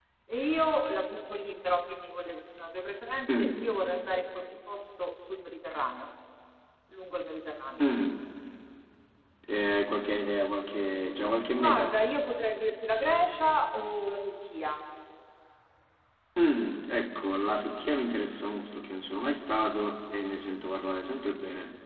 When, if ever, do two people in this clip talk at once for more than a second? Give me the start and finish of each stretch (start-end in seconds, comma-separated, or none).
none